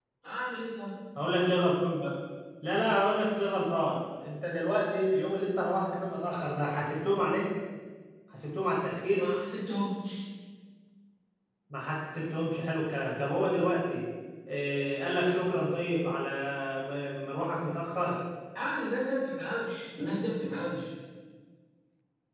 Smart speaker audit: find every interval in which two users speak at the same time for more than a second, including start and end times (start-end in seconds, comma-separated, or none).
none